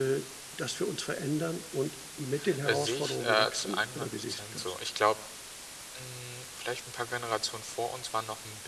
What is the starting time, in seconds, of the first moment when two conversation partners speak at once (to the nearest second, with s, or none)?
3 s